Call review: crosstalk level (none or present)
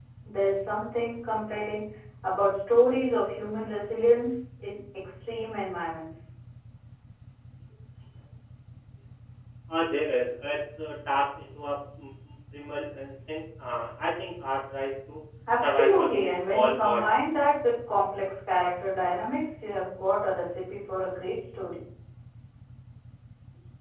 present